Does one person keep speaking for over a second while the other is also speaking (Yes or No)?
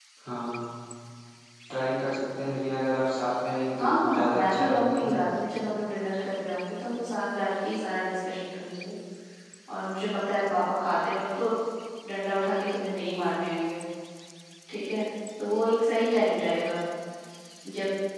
Yes